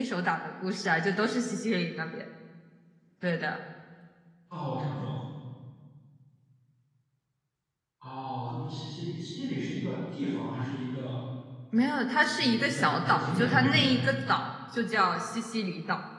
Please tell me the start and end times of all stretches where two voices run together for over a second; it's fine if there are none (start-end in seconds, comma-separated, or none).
12.4-13.9